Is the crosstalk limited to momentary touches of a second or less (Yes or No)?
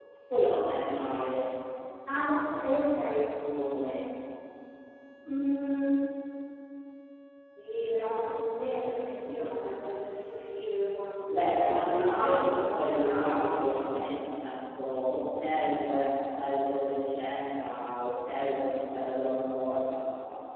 No